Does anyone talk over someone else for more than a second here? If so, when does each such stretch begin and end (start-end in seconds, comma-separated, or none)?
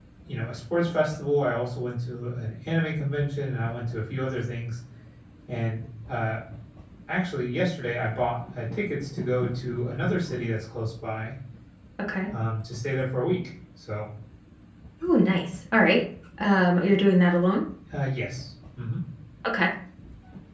none